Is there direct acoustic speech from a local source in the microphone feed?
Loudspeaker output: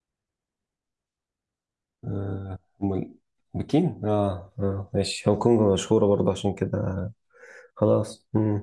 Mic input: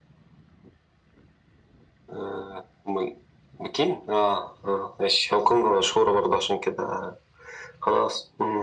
No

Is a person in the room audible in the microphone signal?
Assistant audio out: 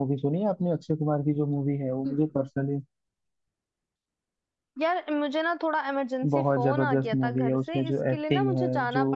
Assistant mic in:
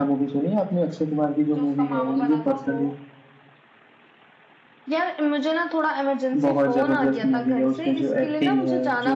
Yes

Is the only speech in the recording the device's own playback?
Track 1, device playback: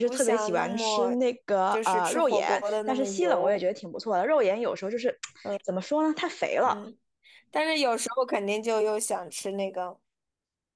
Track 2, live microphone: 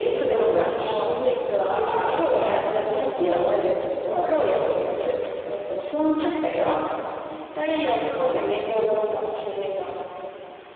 Yes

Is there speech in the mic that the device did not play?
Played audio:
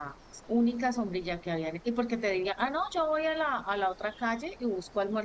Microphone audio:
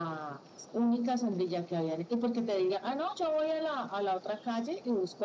No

